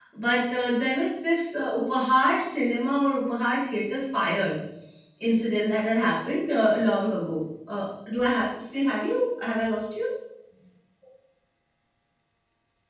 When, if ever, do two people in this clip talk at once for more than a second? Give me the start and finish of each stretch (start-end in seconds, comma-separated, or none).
none